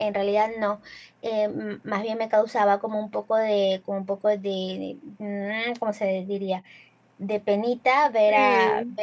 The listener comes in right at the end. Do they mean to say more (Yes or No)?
No